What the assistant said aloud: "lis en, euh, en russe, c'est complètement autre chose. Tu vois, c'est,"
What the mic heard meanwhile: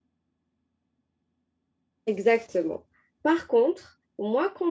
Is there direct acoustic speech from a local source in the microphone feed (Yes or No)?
Yes